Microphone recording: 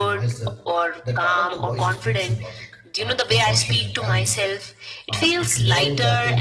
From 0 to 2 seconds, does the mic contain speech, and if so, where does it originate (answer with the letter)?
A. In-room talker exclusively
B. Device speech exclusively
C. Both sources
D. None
C